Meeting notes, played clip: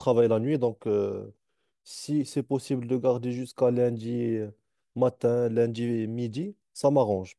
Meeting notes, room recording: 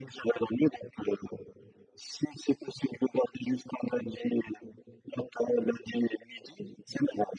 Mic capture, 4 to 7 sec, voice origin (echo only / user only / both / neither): echo only